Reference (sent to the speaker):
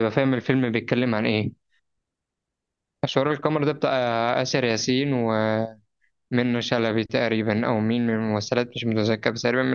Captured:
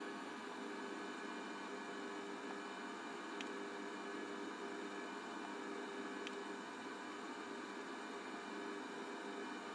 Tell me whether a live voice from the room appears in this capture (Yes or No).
No